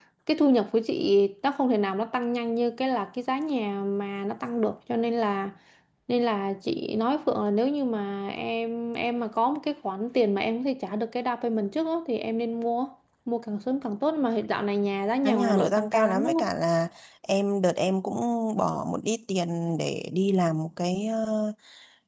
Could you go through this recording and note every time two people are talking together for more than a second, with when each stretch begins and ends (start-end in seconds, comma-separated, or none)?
15.2-16.5